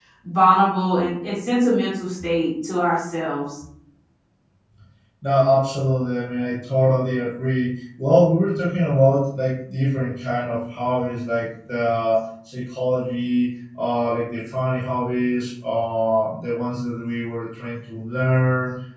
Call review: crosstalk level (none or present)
none